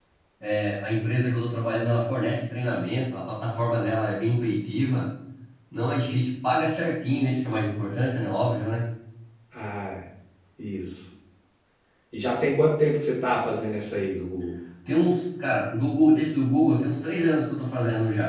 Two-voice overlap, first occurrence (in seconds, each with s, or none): none